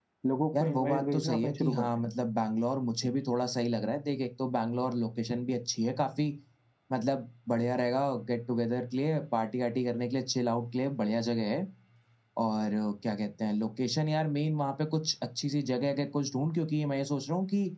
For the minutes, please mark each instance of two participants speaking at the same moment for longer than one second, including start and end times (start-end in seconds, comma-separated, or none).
0.6-1.9